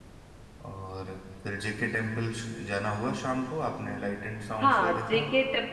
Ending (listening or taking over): taking over